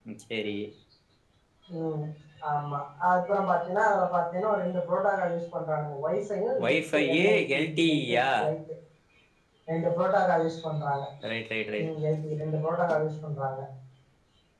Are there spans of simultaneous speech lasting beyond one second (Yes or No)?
Yes